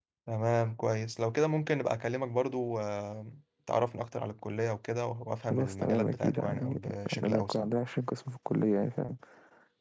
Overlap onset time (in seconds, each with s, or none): 5.5 s